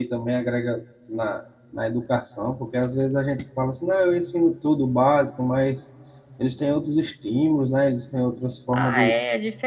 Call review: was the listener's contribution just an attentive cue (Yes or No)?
No